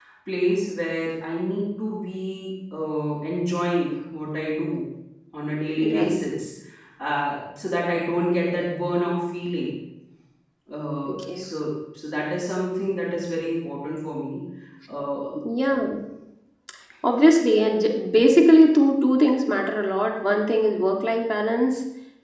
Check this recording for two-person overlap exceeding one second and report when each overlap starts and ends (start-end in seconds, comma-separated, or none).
none